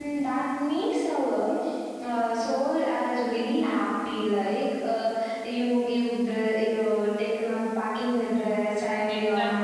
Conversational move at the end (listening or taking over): taking over